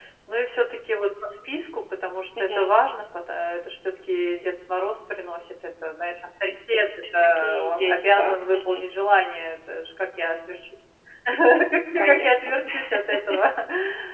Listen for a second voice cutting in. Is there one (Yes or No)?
Yes